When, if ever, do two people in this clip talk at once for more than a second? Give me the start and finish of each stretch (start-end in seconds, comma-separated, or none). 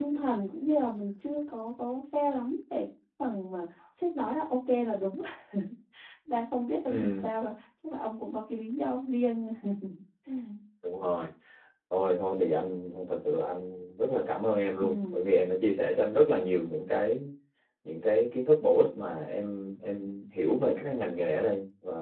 none